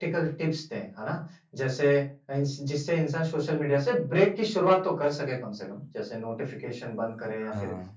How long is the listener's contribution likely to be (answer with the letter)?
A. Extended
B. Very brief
B